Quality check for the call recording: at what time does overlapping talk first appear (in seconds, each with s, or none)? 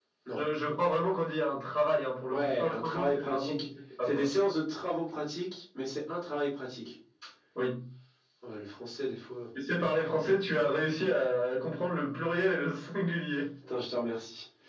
2.3 s